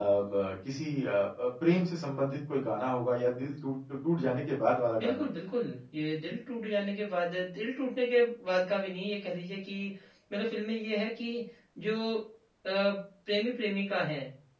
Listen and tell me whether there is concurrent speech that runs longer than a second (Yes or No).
No